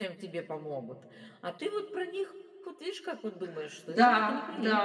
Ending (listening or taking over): taking over